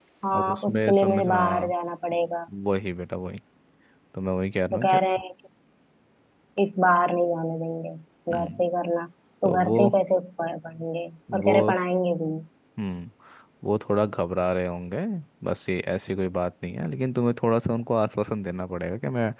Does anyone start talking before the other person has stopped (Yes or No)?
Yes